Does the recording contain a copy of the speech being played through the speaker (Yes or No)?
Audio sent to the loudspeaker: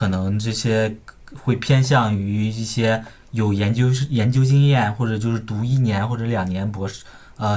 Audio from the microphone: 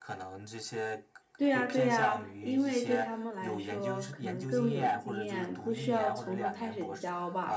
Yes